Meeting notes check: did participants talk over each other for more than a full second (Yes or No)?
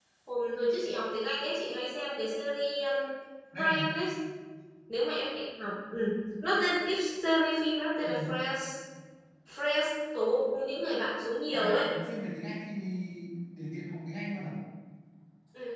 No